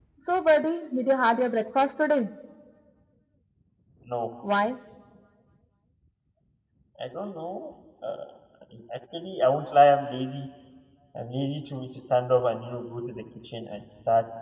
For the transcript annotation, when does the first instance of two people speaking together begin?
none

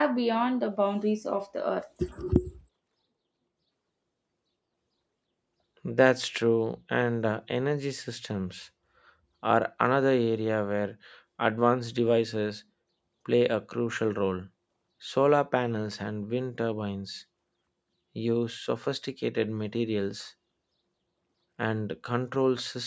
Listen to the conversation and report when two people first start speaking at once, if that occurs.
none

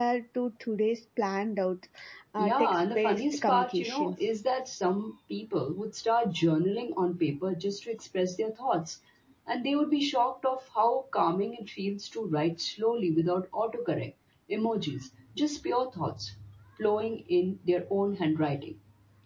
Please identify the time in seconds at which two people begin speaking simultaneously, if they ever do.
2.4 s

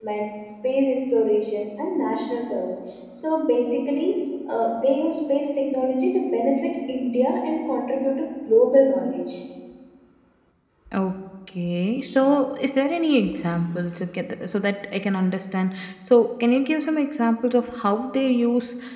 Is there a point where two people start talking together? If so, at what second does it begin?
none

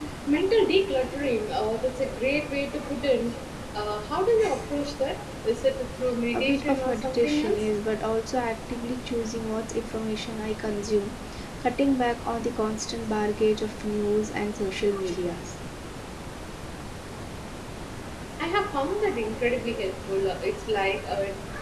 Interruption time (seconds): 6.3 s

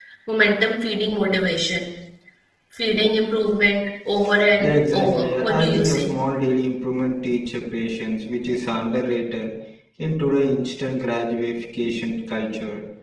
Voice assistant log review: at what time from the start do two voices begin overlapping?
4.6 s

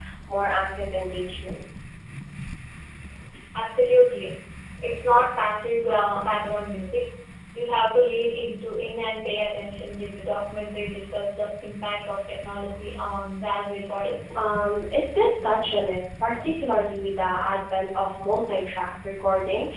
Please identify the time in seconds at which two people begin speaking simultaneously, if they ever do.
none

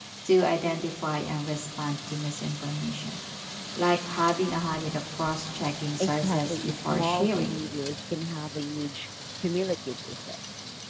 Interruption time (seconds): 6.0 s

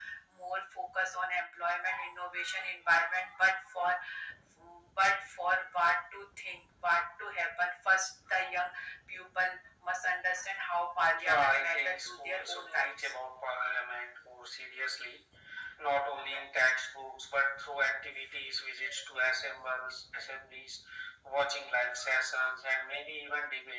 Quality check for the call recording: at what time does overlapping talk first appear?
11.1 s

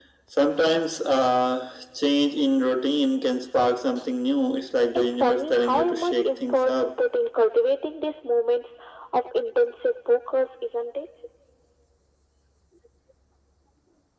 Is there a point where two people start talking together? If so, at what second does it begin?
4.9 s

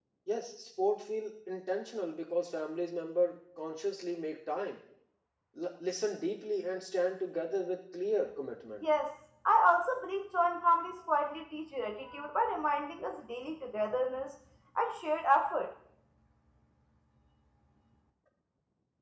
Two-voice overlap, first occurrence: none

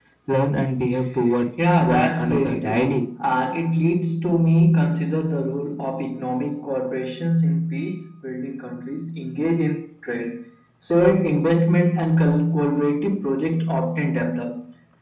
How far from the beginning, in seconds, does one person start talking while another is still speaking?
1.6 s

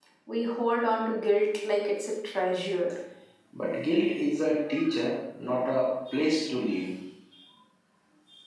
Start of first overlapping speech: none

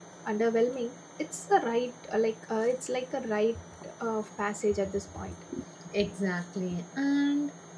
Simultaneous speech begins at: none

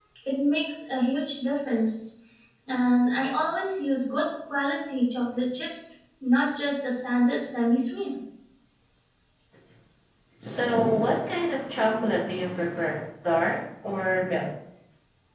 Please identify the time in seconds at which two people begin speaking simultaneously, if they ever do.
none

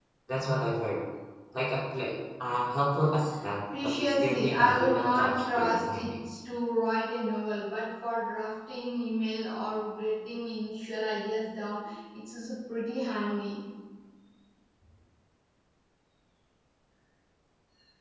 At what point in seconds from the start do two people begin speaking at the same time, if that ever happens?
3.7 s

